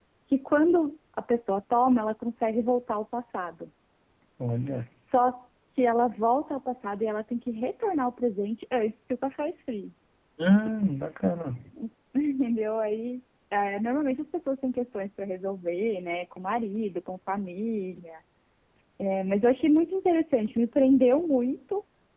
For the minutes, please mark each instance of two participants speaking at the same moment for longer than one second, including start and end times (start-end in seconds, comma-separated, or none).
none